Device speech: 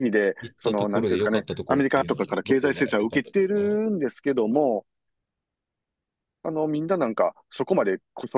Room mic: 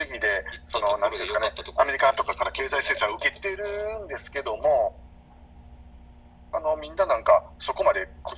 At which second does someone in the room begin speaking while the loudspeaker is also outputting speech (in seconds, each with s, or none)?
none